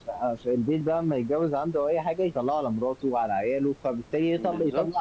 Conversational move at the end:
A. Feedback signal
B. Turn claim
A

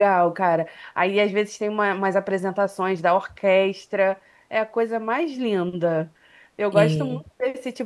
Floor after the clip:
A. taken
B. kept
B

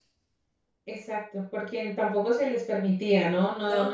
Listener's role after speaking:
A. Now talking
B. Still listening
B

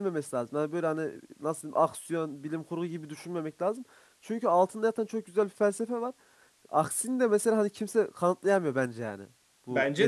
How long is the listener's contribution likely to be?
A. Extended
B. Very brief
A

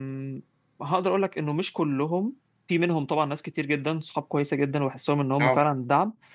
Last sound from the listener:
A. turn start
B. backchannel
B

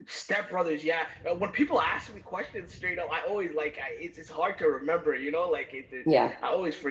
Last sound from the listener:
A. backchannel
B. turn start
A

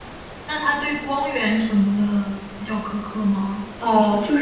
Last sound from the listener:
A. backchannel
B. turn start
B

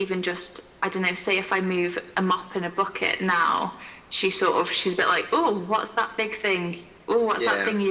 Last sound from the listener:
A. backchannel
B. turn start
A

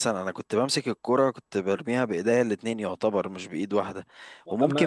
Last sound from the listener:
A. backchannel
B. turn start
A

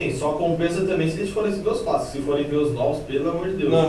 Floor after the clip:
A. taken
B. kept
A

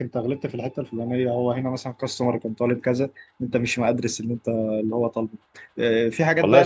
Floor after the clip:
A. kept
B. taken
B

